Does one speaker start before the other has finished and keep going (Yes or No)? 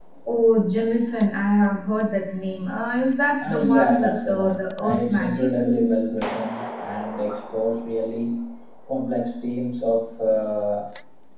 Yes